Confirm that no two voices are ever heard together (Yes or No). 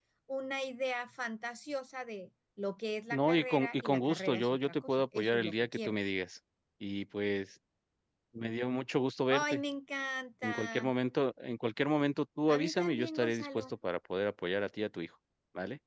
No